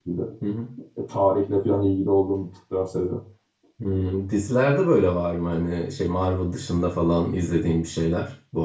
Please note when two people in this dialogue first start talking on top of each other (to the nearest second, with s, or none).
none